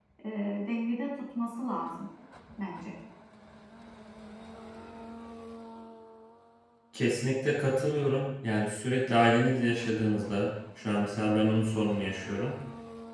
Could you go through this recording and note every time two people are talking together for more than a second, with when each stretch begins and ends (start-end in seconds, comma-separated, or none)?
none